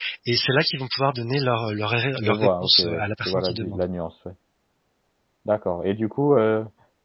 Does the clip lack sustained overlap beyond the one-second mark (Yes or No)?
No